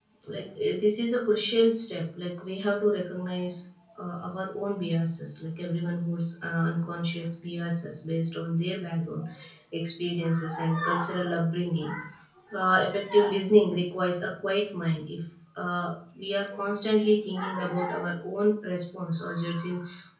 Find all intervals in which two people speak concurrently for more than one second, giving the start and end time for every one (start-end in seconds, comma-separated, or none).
none